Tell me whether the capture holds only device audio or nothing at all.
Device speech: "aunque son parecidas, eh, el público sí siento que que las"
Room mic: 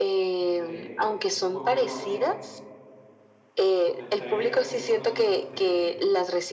No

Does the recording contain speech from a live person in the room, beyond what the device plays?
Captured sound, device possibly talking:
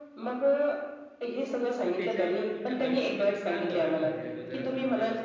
Yes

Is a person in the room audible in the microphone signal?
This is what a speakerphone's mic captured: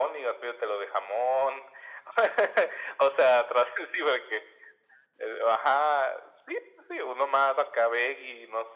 No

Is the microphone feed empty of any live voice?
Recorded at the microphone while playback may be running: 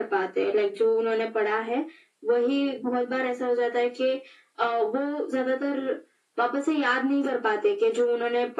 Yes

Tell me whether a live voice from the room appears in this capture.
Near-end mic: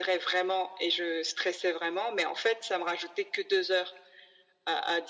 No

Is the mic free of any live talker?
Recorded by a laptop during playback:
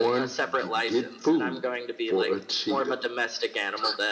Yes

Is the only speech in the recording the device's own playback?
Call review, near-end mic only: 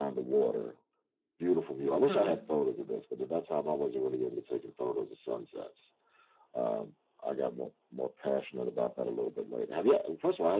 No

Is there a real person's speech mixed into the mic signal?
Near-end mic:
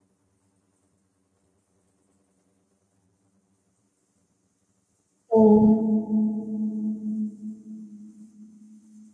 Yes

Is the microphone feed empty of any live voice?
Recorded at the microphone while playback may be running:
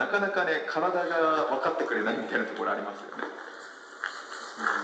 Yes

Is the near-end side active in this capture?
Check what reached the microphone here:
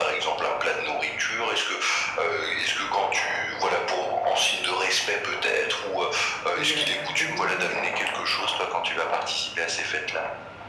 Yes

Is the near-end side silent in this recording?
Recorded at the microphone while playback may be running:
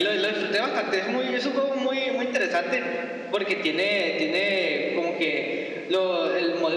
Yes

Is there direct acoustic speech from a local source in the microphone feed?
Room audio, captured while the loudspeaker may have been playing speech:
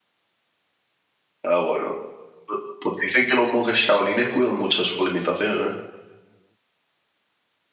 Yes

